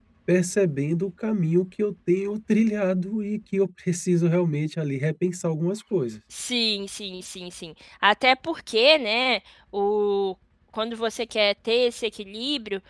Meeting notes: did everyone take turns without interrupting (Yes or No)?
Yes